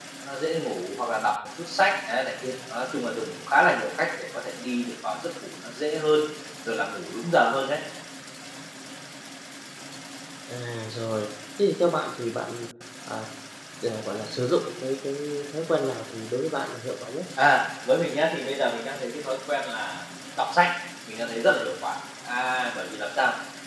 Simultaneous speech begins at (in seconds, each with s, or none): none